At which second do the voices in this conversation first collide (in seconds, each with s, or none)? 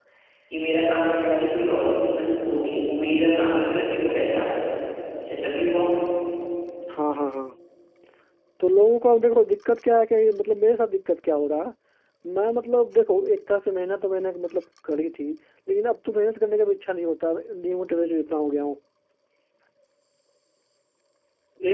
none